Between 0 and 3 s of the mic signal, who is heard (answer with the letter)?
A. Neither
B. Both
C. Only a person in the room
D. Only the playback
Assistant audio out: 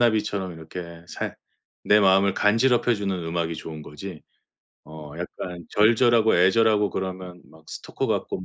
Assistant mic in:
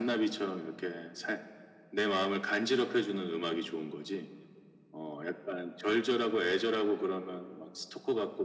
D